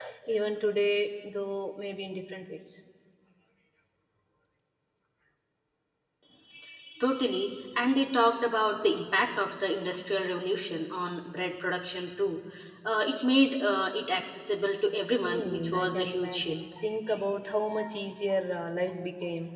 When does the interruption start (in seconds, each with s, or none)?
15.2 s